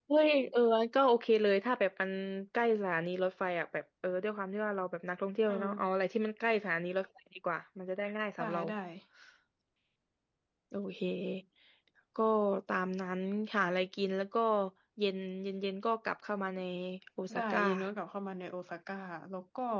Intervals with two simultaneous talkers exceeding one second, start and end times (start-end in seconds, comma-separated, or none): none